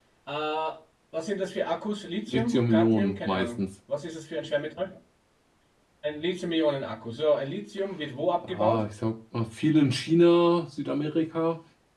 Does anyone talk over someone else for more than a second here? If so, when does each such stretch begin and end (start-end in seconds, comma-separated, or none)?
2.3-3.6